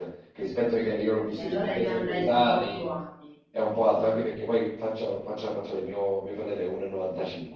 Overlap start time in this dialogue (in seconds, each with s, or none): 1.3 s